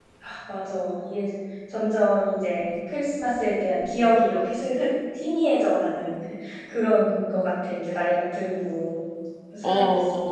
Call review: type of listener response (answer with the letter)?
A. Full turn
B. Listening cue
A